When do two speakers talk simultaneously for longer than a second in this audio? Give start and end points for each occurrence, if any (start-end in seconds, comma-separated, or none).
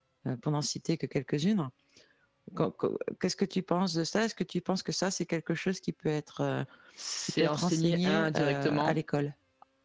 7.4-9.0